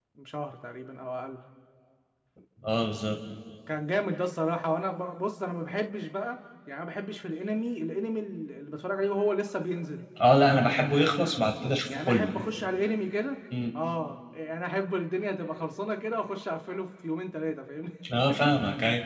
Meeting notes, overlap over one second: none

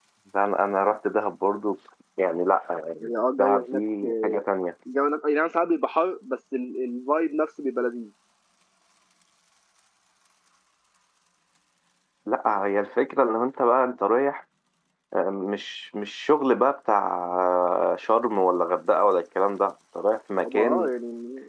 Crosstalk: present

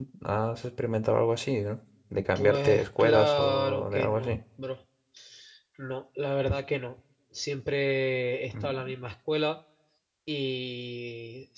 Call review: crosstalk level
present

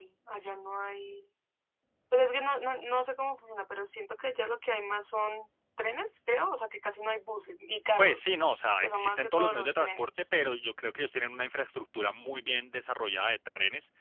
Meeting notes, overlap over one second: present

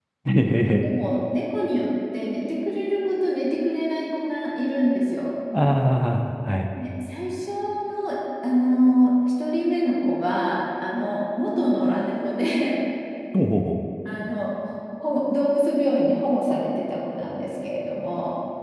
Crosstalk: none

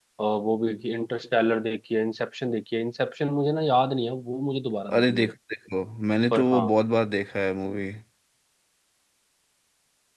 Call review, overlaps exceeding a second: none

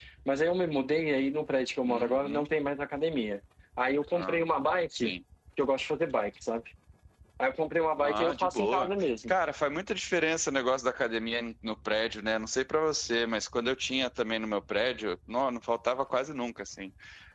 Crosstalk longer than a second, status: present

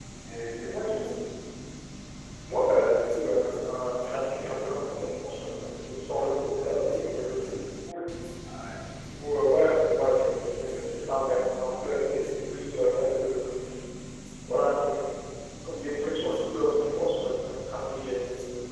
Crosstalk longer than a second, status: none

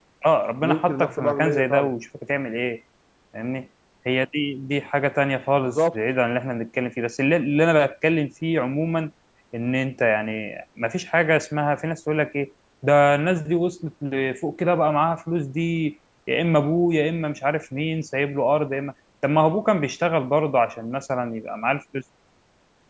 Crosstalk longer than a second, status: present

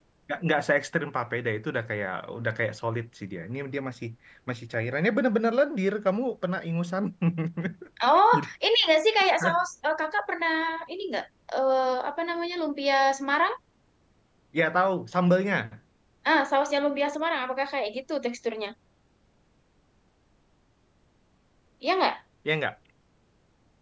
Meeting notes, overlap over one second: none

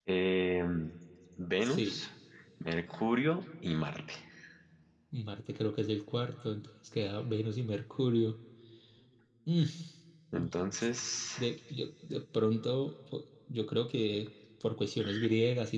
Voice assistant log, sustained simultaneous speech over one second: none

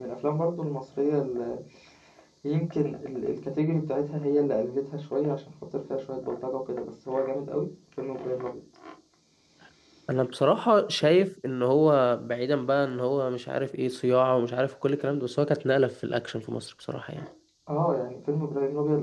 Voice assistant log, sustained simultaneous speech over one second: none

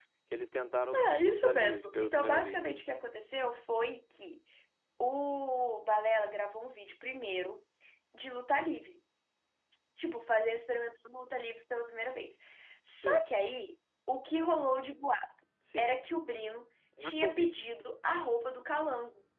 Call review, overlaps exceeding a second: present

